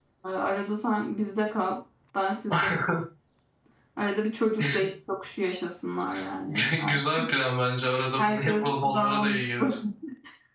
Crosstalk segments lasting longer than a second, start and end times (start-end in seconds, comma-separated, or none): 8.2-9.8